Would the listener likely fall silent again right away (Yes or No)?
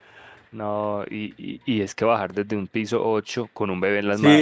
No